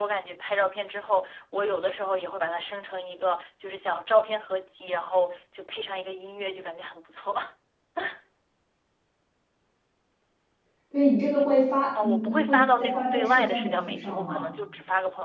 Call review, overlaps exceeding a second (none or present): present